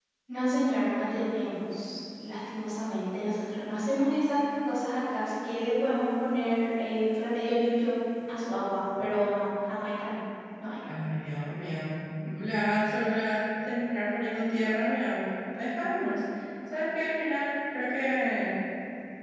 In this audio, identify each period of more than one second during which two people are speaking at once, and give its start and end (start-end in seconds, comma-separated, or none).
none